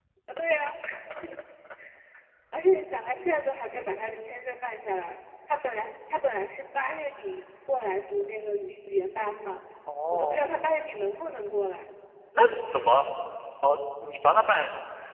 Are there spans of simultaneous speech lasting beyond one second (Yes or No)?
No